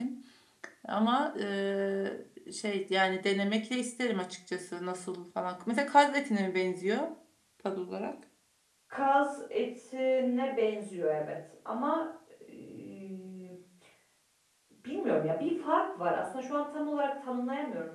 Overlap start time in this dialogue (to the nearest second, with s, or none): none